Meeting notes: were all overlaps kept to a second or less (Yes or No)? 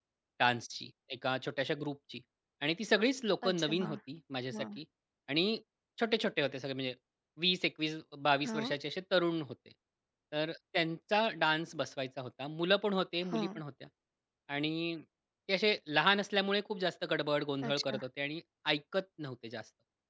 Yes